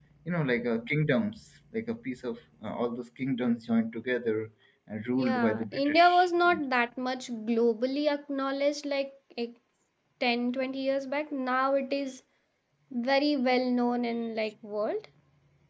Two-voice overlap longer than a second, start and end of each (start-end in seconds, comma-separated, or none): 5.1-6.6